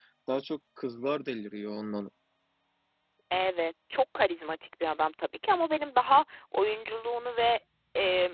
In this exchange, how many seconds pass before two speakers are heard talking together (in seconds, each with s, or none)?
none